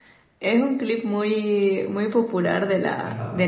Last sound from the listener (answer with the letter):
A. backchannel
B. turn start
A